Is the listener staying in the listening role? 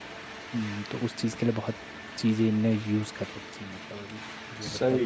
No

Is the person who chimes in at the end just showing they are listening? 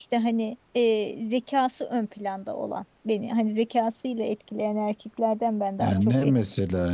No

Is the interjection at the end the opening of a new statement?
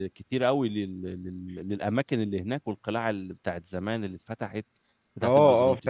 Yes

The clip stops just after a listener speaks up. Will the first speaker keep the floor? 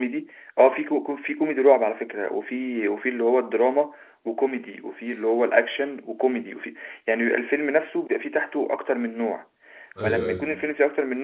Yes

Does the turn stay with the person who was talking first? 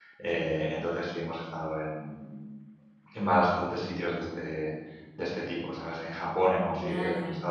Yes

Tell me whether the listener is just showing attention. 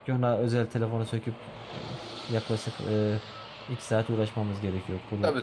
No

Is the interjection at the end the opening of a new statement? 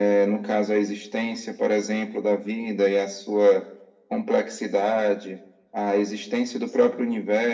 No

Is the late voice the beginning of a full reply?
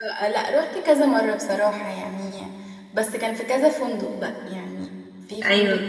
No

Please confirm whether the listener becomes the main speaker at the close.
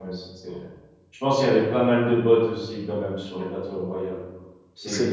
Yes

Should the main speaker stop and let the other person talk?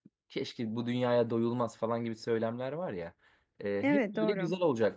No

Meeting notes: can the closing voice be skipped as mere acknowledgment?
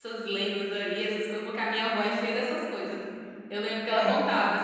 Yes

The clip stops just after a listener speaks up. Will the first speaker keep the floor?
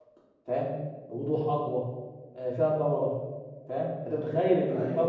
Yes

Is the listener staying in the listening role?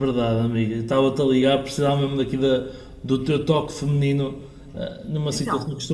Yes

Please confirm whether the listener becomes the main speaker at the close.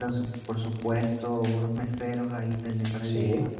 No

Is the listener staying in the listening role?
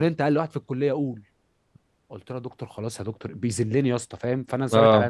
Yes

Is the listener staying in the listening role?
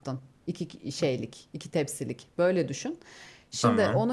Yes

